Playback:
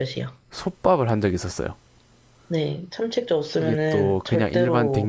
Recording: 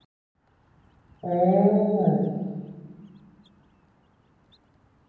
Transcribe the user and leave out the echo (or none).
오,